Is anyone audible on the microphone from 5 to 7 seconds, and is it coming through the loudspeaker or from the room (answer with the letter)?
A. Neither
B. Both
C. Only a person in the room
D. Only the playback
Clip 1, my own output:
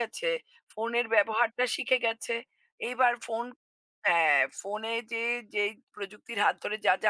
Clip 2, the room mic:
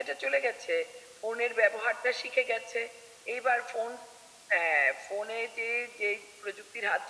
D